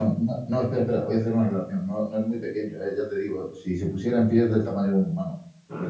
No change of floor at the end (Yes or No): No